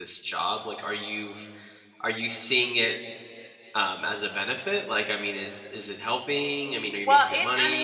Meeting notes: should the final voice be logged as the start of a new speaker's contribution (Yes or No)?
Yes